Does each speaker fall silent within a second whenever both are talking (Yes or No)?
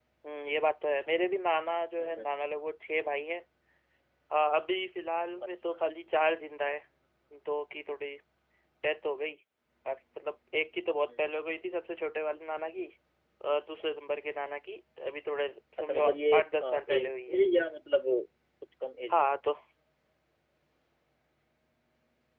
No